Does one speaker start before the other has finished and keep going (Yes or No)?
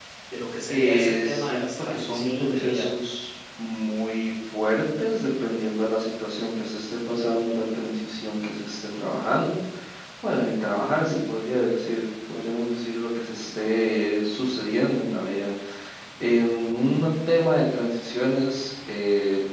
Yes